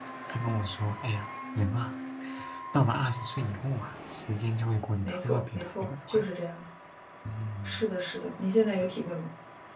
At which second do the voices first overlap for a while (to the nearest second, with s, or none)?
5 s